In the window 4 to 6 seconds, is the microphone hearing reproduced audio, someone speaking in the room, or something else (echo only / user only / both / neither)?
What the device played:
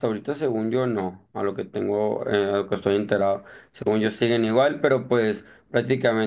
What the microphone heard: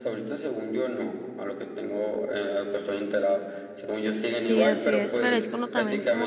both